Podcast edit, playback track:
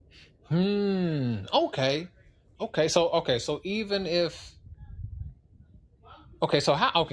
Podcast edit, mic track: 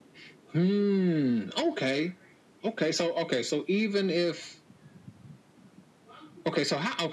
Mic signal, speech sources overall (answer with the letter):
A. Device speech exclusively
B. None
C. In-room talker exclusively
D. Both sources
A